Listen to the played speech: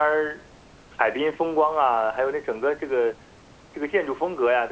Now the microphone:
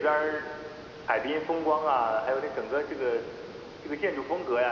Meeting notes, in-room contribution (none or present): none